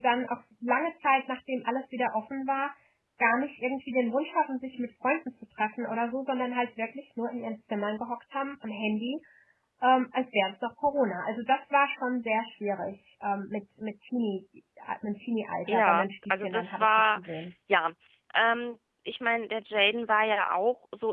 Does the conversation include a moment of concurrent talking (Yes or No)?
Yes